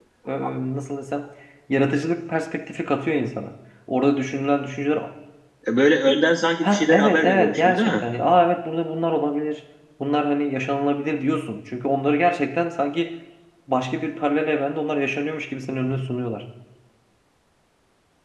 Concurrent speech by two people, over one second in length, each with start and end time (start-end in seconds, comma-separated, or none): 6.6-8.0